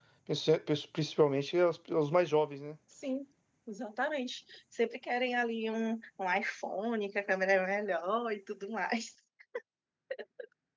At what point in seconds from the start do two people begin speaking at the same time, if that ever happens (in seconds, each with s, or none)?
none